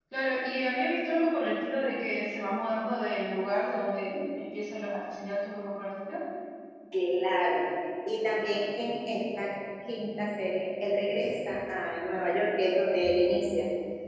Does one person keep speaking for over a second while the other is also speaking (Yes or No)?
No